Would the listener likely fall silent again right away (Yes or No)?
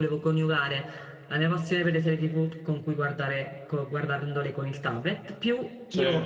Yes